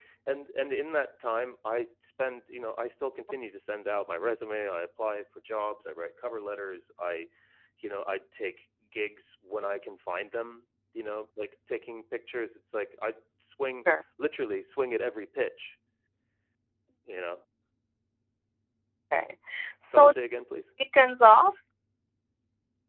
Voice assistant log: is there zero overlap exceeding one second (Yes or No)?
Yes